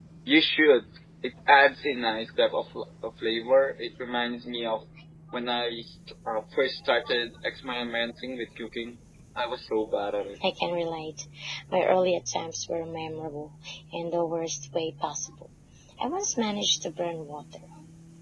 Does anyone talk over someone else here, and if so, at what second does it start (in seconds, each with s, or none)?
none